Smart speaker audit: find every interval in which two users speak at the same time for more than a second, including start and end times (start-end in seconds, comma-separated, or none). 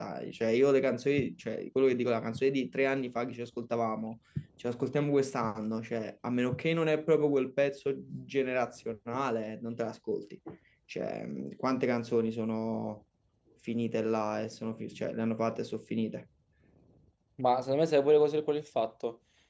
none